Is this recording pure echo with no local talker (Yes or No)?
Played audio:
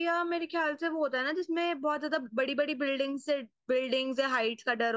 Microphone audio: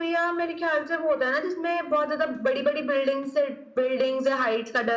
Yes